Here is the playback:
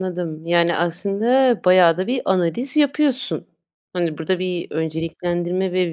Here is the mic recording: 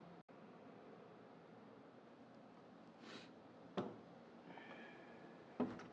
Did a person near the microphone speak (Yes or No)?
No